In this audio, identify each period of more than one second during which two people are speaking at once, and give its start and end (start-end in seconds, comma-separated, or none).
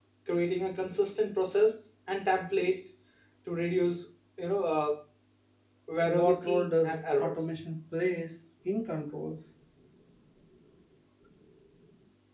6.0-7.5